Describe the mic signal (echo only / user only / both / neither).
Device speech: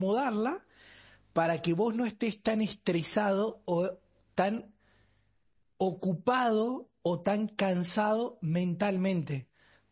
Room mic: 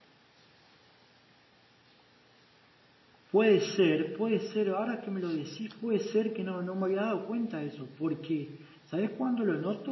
user only